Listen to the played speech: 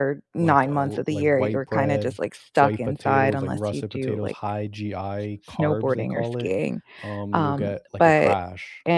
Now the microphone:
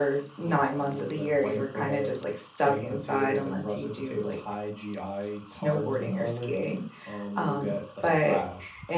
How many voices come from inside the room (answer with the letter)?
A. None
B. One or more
A